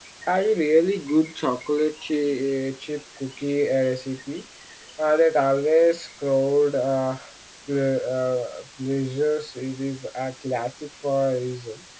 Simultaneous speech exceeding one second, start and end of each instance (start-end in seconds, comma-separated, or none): none